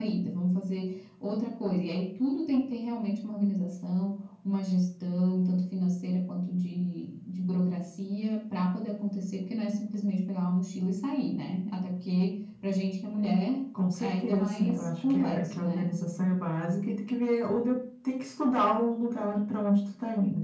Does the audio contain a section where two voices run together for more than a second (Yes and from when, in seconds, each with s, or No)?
Yes, from 14.0 s